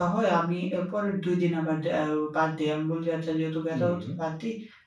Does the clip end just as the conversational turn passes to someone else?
No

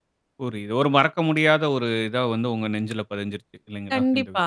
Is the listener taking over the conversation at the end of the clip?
Yes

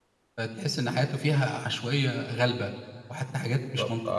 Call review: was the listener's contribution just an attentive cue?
No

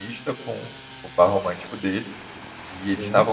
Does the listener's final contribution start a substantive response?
No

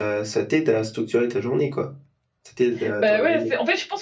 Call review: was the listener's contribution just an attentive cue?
No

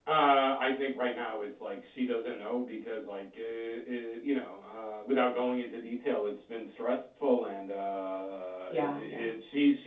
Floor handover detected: No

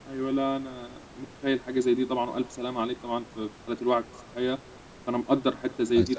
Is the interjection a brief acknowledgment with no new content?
Yes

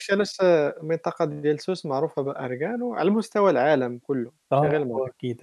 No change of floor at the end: No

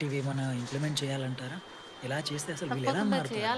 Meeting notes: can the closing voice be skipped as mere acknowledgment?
No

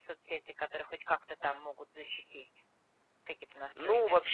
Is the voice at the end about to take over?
Yes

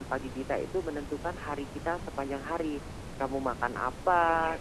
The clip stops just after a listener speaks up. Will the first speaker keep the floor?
Yes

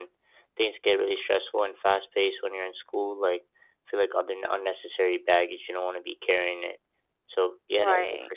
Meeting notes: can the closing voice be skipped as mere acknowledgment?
Yes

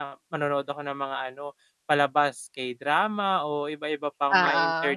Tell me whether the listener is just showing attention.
Yes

